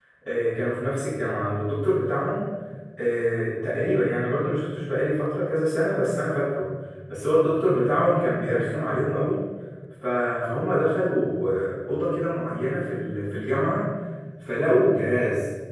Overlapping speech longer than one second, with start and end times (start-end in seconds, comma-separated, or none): none